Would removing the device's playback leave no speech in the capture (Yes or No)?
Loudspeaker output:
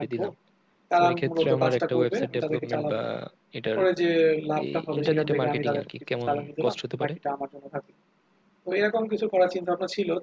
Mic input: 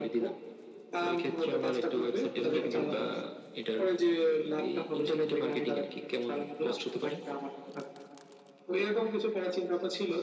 No